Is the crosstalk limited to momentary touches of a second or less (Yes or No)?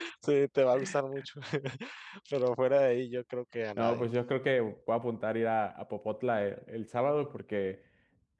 Yes